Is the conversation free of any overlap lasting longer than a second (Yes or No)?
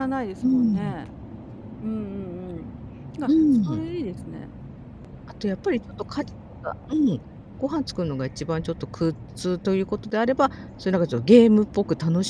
Yes